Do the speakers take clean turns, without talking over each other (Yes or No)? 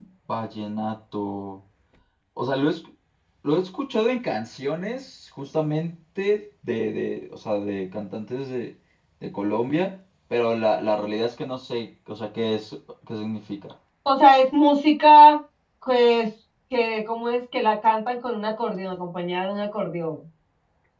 Yes